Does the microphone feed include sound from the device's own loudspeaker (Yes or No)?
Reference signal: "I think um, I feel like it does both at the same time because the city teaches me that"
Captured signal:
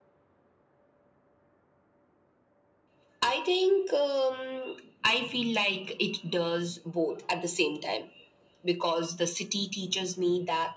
Yes